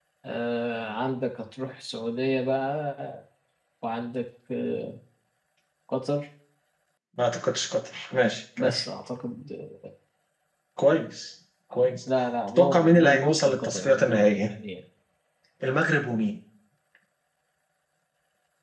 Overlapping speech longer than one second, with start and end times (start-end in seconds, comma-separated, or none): 12.6-14.5